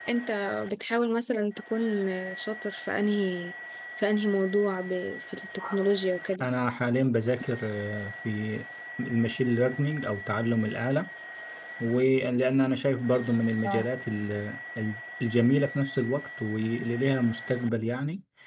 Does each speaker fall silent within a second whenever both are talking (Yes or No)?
Yes